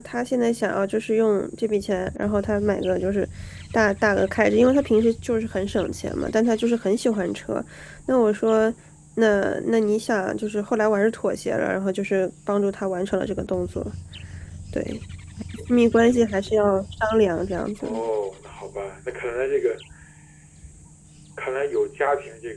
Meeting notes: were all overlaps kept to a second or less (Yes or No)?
Yes